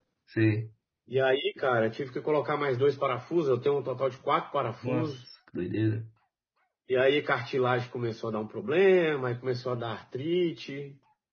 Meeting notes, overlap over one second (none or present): none